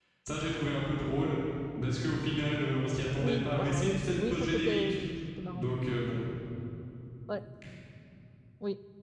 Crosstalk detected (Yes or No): Yes